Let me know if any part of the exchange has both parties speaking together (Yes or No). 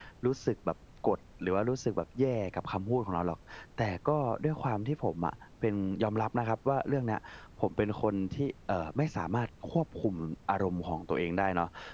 No